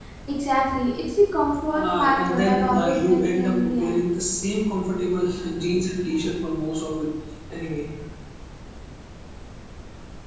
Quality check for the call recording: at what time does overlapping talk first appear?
2 s

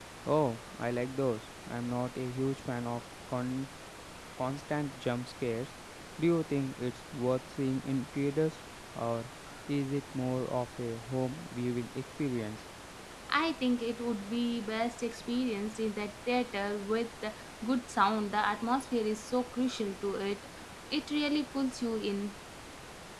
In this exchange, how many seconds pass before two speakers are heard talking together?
none

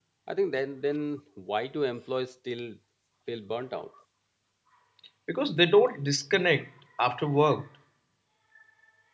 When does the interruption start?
none

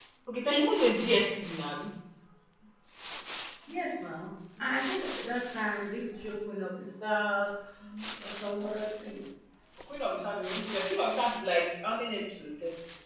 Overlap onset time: none

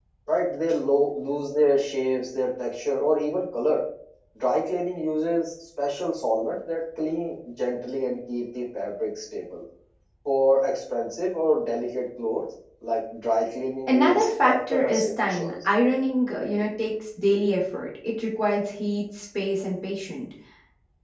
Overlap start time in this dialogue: 14 s

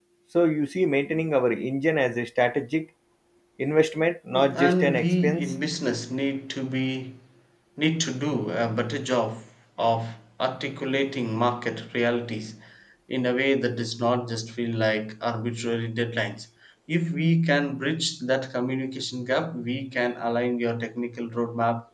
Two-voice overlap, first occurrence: 4 s

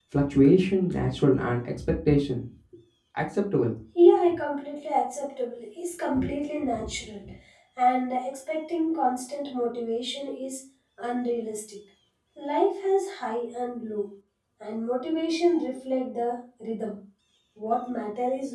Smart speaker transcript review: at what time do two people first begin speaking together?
none

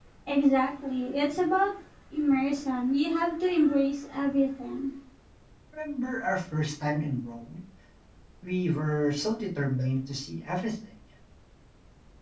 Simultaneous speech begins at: none

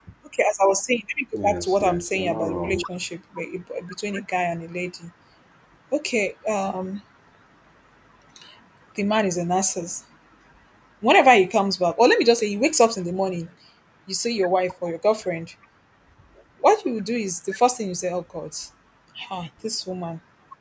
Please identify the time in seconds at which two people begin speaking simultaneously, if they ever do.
1 s

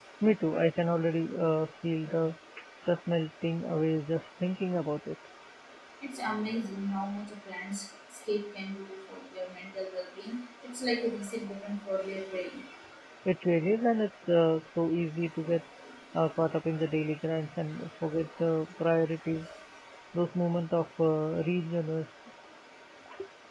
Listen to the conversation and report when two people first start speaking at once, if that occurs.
none

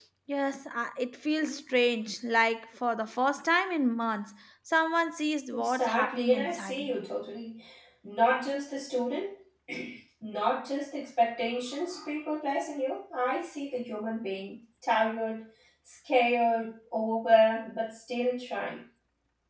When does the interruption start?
6 s

